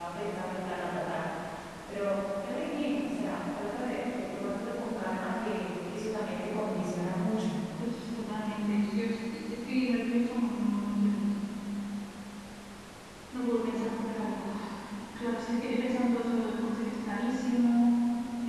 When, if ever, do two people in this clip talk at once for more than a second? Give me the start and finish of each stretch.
none

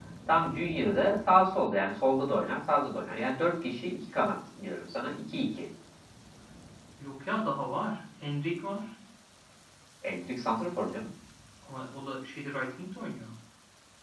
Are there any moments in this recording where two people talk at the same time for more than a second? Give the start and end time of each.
none

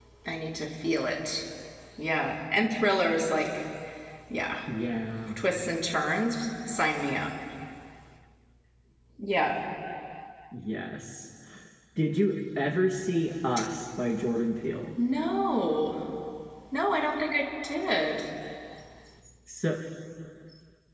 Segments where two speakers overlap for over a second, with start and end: none

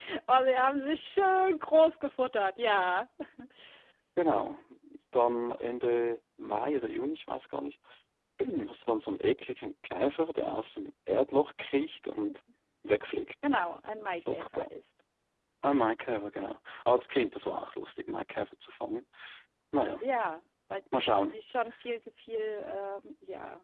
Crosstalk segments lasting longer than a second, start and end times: none

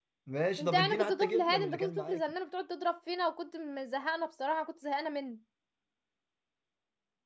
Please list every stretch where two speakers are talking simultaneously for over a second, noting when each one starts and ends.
0.6-2.2

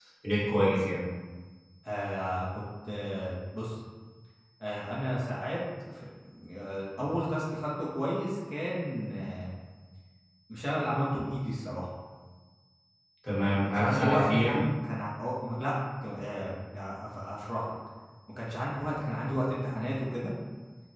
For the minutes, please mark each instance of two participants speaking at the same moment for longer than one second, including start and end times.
13.3-14.6

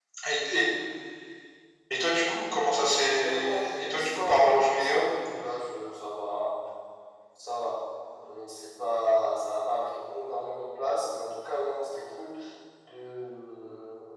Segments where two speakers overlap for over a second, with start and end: 3.1-5.0

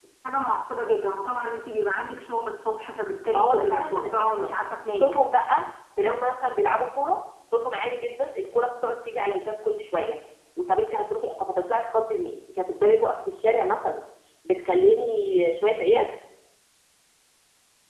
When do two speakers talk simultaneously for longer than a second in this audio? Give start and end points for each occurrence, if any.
3.3-4.5

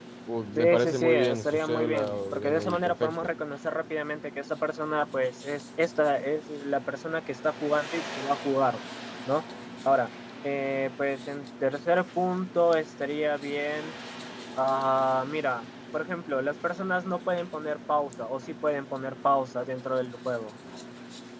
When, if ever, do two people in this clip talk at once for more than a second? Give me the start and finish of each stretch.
0.6-3.1

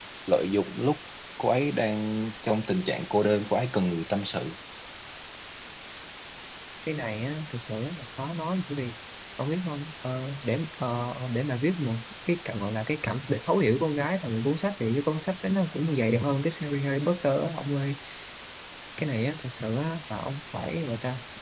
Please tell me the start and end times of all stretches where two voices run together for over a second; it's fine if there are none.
none

